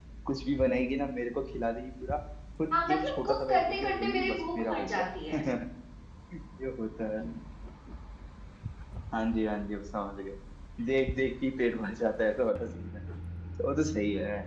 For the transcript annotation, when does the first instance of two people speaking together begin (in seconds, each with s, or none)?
2.7 s